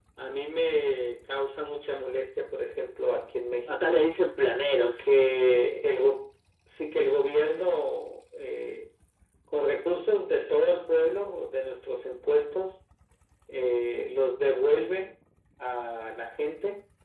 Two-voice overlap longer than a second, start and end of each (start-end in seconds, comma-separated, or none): none